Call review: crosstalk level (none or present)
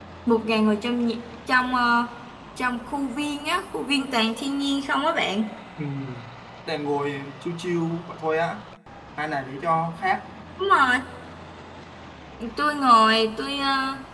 none